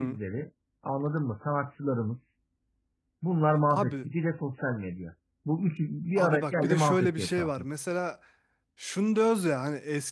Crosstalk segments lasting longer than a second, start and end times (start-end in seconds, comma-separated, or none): 6.2-7.6